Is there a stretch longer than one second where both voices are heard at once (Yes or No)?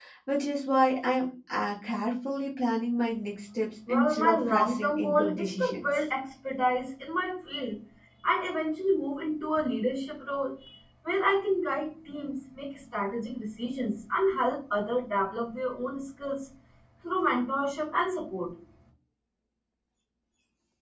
Yes